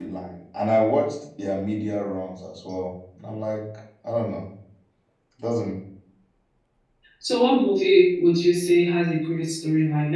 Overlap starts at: none

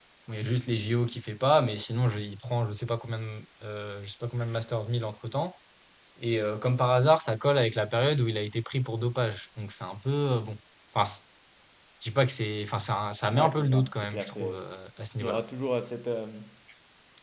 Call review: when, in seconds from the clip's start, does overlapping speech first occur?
13.3 s

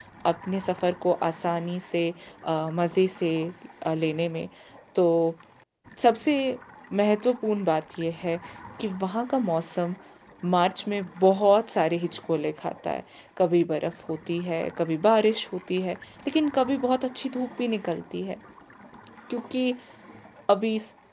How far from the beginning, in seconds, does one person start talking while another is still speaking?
none

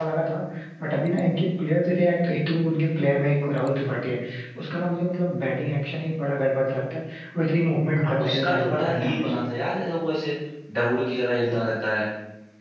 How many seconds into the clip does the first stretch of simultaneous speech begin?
8.0 s

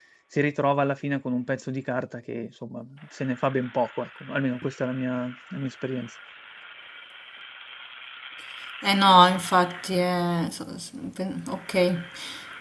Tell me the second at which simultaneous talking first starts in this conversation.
none

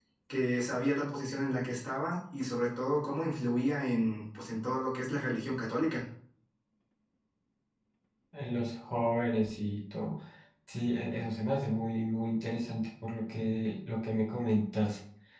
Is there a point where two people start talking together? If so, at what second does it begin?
none

